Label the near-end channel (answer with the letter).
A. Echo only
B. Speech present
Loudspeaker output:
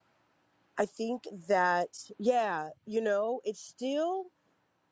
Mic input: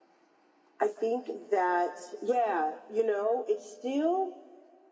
A